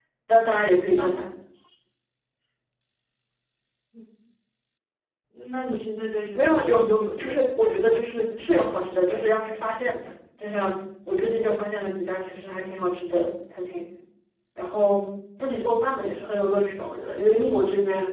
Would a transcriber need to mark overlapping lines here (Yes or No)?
Yes